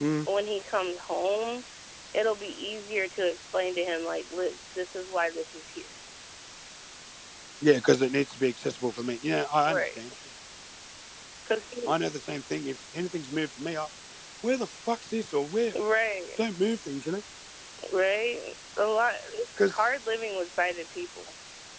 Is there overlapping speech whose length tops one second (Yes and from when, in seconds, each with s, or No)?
No